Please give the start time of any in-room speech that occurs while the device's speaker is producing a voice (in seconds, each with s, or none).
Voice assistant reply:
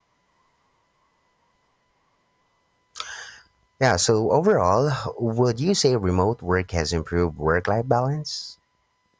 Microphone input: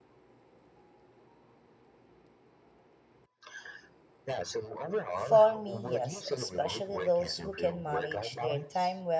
5.1 s